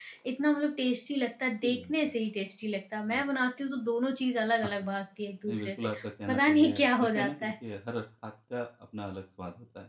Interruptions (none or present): present